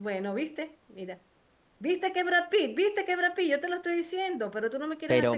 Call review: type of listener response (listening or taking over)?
taking over